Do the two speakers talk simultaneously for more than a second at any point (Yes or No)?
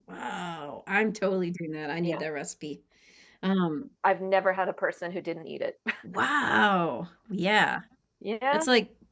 No